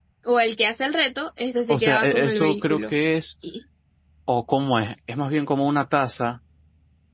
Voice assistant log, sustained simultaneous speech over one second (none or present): present